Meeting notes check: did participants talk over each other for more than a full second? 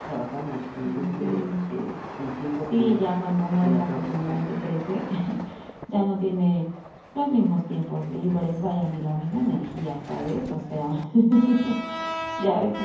Yes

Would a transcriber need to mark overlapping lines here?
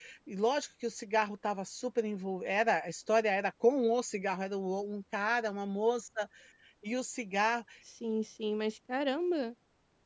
No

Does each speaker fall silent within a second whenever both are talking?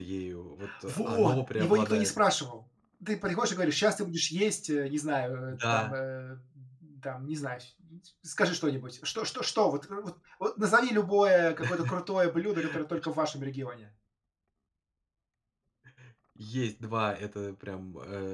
No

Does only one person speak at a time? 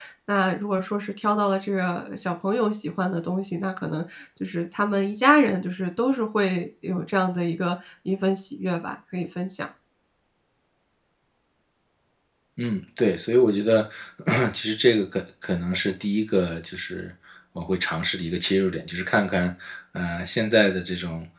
Yes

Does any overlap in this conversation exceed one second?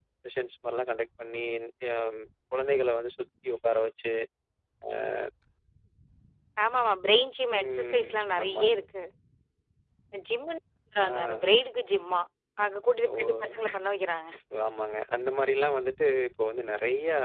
Yes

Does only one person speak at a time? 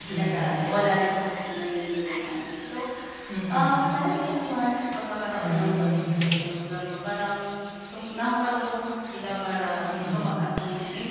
No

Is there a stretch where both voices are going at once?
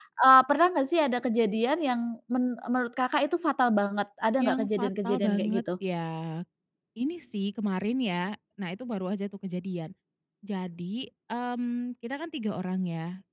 Yes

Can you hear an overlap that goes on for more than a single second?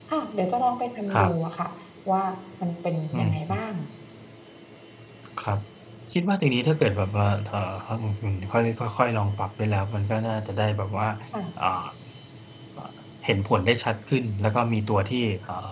No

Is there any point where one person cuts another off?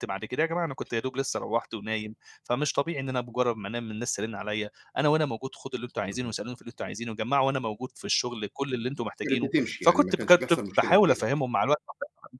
Yes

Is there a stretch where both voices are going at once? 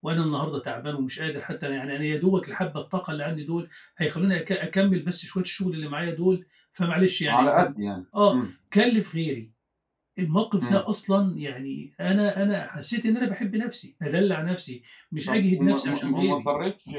Yes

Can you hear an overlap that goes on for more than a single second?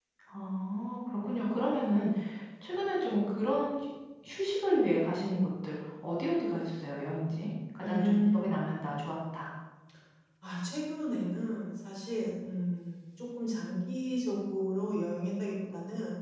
Yes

